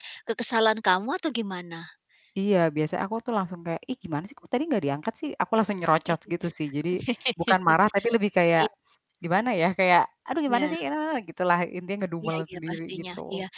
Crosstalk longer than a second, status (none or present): present